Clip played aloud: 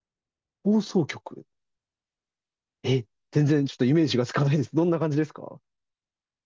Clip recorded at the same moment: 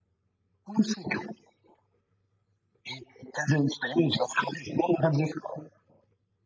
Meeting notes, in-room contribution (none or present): none